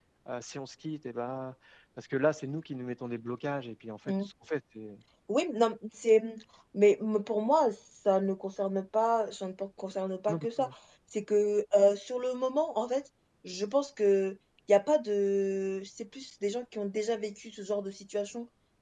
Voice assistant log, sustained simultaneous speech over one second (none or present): none